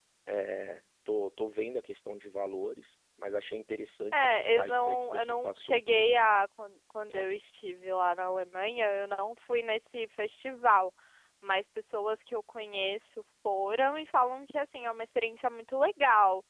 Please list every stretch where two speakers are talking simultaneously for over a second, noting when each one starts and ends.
4.1-5.8

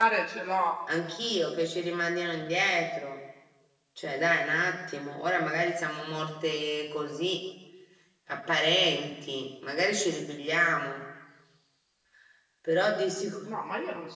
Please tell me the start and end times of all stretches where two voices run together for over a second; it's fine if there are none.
none

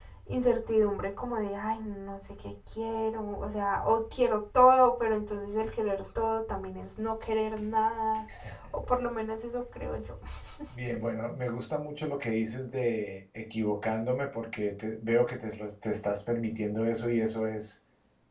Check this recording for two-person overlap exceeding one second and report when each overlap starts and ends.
none

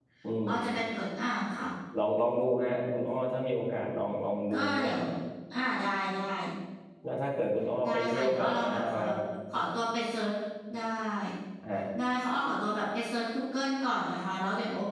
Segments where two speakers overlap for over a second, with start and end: 7.8-9.1

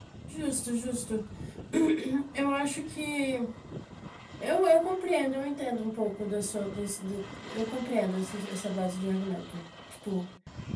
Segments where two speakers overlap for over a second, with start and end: none

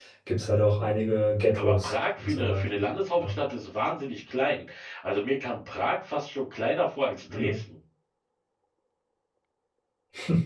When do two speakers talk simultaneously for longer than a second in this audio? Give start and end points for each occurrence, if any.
1.5-2.8

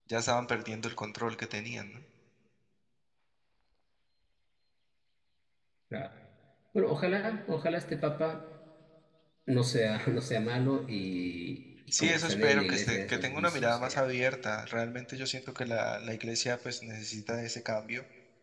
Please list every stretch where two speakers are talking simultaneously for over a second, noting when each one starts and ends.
12.0-14.0

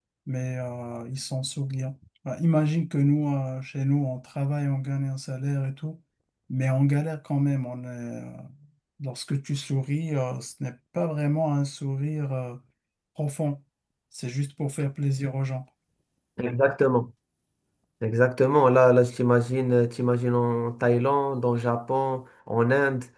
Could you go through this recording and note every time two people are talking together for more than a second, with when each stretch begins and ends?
none

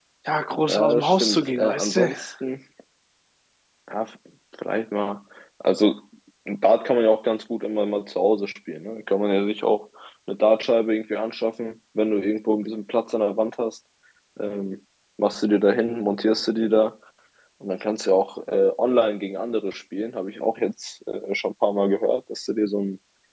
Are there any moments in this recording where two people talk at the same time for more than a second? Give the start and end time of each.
0.7-2.1

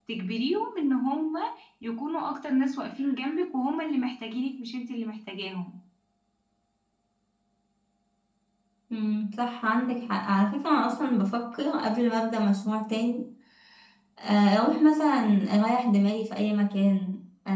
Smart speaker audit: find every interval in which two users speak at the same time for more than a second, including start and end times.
none

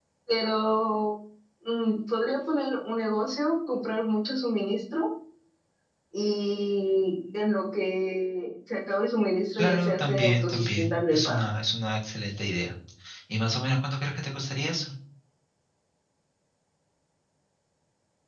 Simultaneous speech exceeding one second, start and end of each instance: 9.6-11.4

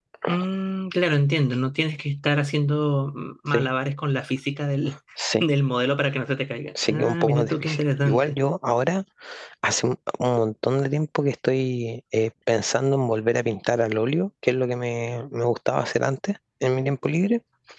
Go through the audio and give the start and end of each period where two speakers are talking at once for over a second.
6.9-8.4

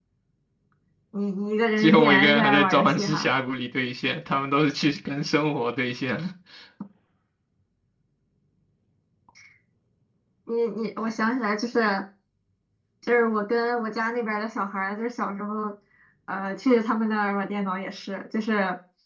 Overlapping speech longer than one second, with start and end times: 1.8-3.3

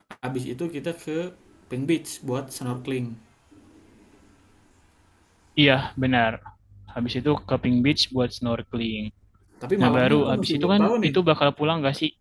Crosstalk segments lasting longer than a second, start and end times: 9.8-11.2

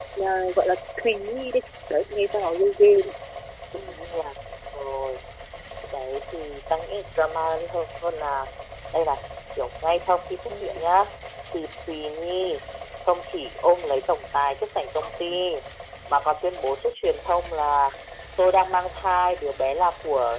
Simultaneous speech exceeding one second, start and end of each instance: none

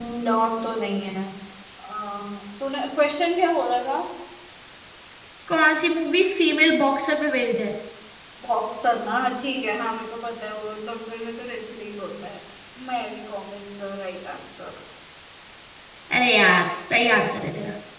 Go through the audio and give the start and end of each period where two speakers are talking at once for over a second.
none

